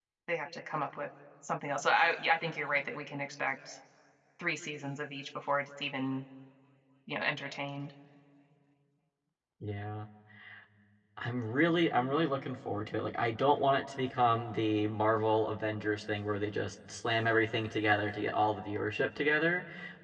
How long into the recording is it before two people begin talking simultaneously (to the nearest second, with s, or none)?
none